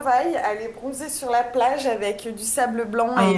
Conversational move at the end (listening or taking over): listening